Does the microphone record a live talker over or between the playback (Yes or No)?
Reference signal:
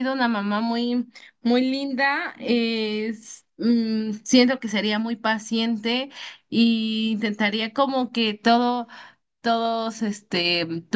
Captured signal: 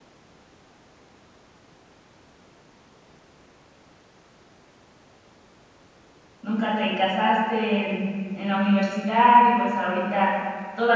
Yes